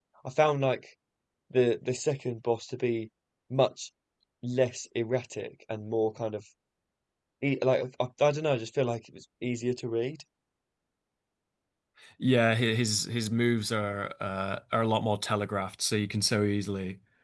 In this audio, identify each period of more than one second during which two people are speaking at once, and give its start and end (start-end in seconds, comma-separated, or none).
none